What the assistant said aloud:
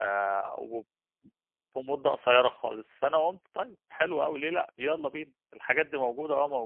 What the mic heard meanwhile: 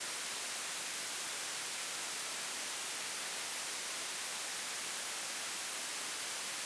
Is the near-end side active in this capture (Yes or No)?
No